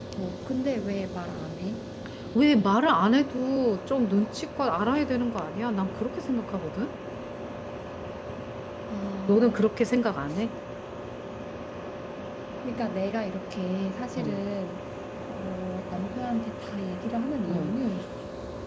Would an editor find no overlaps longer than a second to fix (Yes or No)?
Yes